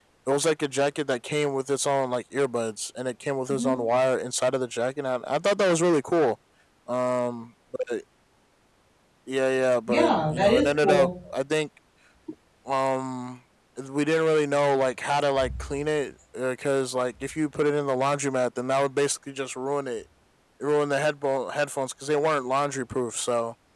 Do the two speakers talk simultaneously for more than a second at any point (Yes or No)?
Yes